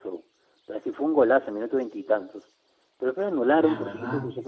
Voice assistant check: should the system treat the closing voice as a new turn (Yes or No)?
No